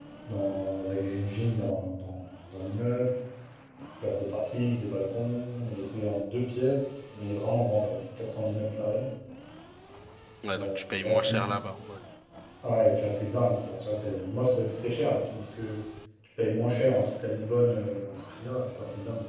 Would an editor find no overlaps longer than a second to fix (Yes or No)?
Yes